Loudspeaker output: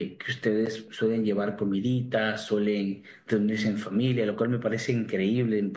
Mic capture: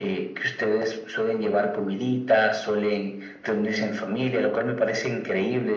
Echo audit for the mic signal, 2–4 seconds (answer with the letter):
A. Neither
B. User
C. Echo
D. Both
C